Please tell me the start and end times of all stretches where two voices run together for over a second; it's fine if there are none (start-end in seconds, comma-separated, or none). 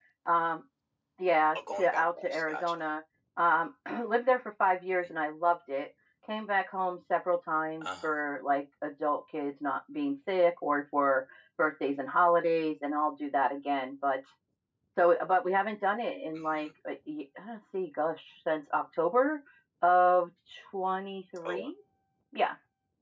1.6-2.8